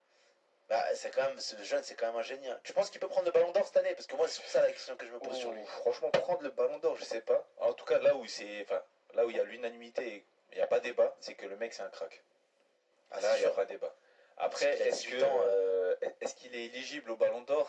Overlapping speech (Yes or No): Yes